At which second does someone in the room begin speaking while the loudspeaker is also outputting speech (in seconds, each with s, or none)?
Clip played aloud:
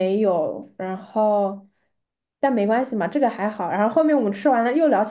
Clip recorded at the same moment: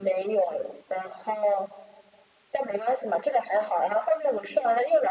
none